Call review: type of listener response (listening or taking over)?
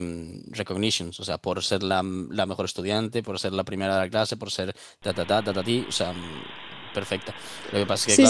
taking over